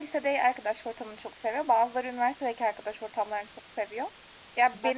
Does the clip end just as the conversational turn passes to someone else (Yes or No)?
No